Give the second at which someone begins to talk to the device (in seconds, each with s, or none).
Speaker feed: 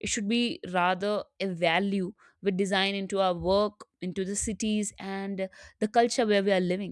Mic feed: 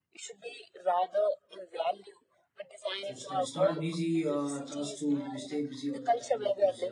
3.0 s